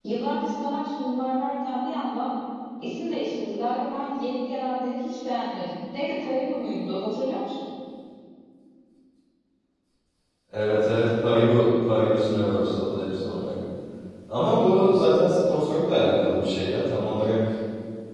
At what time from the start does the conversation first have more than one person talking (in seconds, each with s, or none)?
none